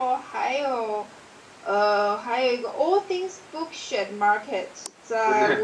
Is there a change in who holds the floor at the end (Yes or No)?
No